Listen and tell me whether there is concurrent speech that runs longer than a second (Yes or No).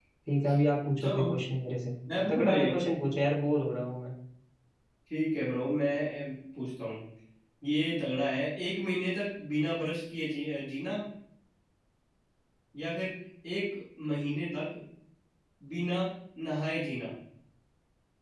No